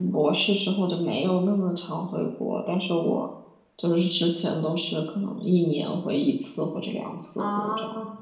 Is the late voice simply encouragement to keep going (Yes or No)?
No